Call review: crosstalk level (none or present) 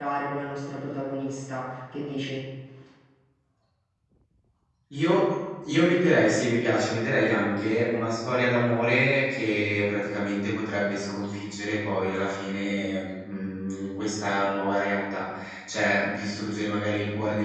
none